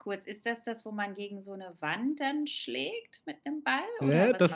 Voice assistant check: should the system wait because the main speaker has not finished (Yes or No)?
No